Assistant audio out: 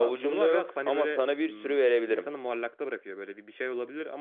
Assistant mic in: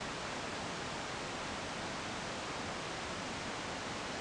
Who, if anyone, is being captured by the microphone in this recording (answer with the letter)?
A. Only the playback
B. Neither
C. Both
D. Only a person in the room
B